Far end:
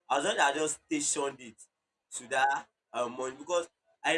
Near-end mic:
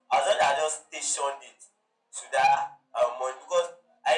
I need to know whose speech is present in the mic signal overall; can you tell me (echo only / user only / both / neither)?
echo only